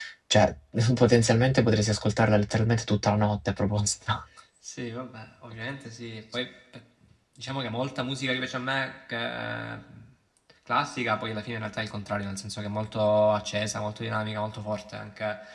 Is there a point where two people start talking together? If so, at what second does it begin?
none

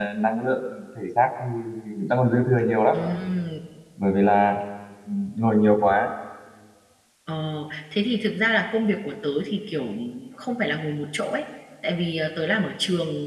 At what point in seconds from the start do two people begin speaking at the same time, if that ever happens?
none

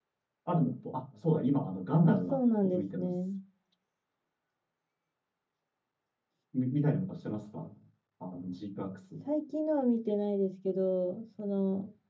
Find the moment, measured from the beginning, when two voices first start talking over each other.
2 s

